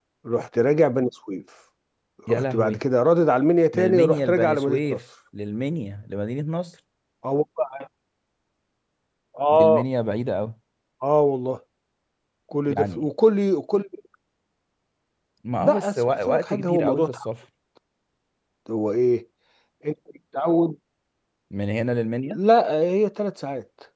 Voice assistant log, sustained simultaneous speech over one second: present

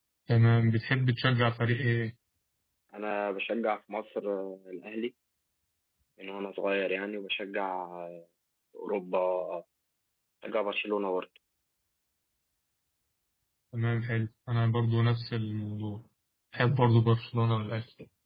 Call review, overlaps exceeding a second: none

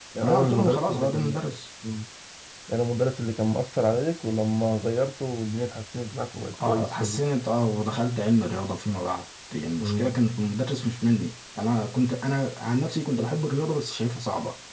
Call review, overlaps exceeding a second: present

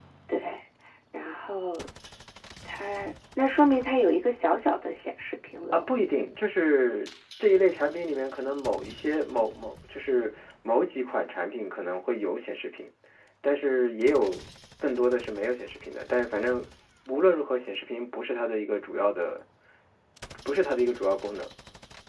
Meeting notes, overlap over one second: none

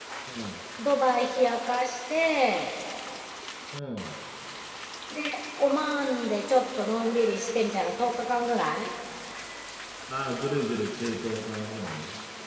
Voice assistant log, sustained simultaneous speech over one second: none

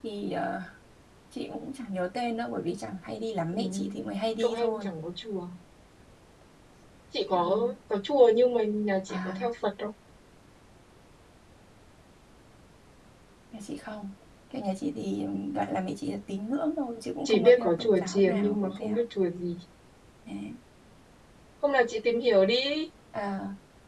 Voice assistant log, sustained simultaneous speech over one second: present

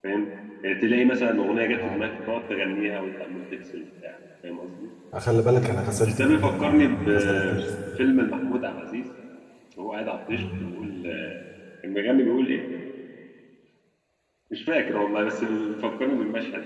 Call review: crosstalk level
present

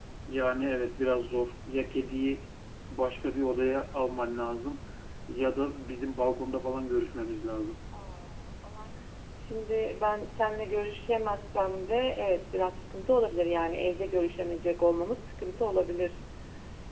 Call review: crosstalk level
none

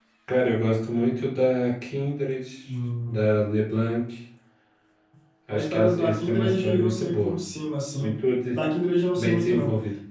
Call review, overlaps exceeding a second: present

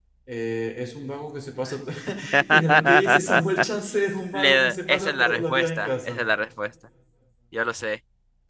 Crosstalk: present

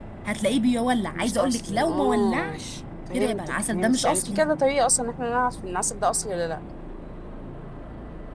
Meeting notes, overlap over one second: present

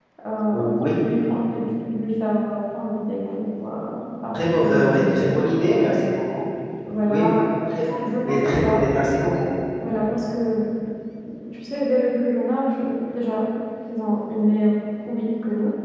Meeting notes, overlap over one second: present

